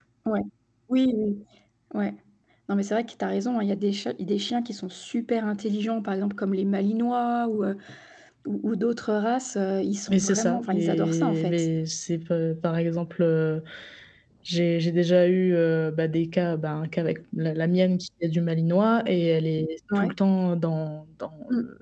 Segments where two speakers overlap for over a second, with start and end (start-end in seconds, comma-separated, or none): 10.1-11.7